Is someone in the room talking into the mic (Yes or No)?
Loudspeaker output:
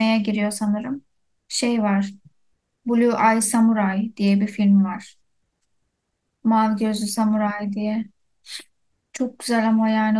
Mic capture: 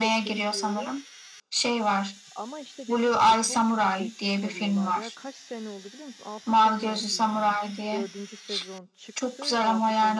Yes